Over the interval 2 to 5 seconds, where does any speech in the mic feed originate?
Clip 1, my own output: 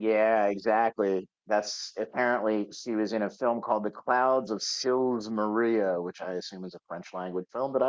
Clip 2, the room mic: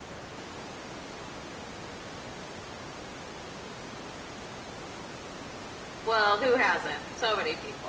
neither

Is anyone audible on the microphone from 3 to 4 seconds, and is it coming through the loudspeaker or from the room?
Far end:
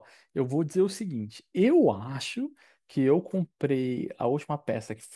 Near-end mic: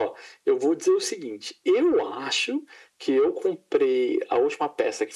echo only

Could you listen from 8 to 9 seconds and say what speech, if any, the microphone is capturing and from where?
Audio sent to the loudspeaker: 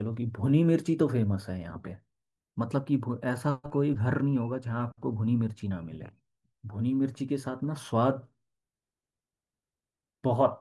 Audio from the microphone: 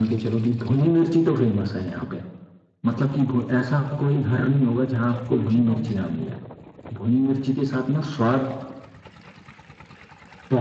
echo only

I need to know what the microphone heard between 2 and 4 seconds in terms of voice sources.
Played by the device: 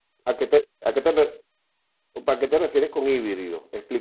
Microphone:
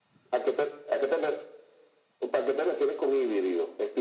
echo only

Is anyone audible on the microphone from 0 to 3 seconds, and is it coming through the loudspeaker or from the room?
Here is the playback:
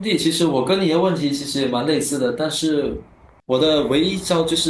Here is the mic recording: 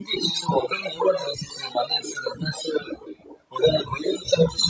echo only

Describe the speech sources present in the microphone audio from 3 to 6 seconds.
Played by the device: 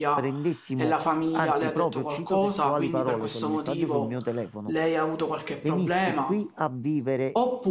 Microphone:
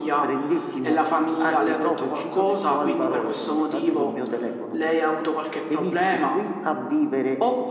echo only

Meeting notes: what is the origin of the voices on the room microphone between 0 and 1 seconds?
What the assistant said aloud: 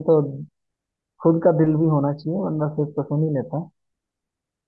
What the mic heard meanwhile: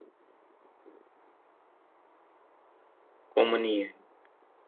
neither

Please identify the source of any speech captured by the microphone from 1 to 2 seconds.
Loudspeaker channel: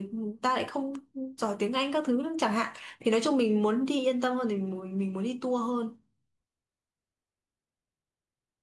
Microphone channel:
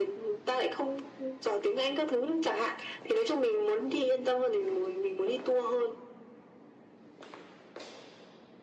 echo only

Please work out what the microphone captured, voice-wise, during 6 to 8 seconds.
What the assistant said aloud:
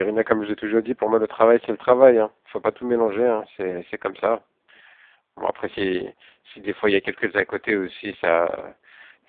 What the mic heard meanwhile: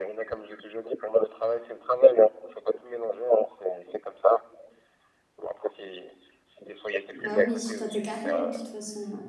both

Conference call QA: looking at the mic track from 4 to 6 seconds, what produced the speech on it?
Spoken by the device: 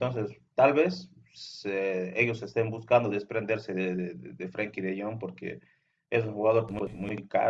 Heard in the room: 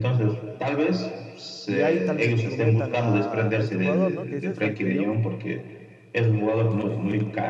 both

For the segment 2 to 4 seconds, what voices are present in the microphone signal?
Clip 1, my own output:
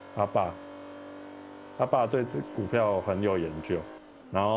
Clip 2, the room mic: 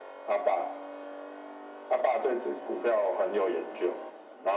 echo only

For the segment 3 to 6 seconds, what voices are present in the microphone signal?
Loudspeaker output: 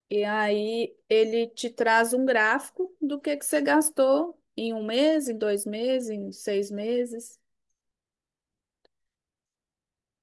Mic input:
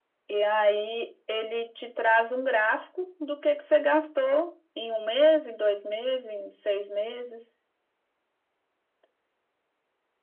echo only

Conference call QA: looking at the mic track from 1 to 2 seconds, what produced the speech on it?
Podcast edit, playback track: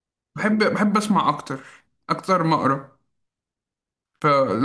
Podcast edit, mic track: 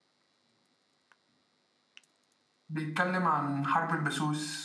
neither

